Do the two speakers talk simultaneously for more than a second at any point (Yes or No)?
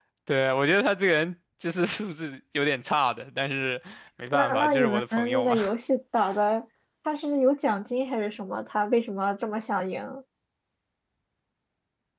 Yes